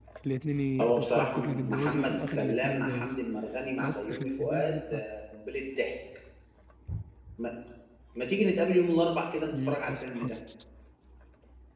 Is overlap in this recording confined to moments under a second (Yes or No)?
No